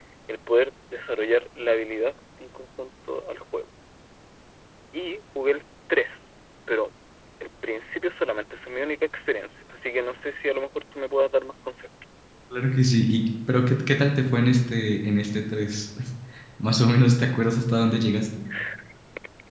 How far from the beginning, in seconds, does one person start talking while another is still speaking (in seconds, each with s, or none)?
none